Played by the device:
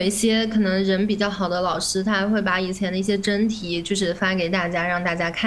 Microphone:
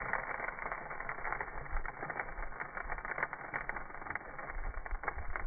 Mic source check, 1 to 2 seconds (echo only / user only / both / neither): neither